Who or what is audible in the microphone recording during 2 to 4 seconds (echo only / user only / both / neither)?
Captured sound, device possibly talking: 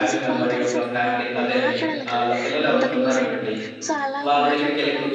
both